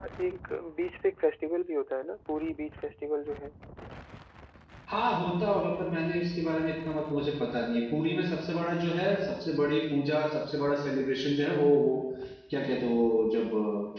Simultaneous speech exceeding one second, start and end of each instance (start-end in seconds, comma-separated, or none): none